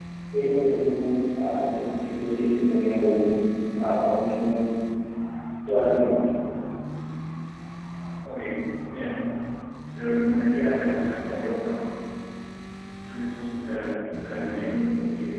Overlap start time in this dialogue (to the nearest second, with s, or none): none